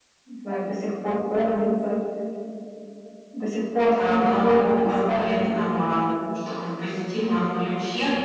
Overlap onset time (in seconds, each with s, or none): 4.0 s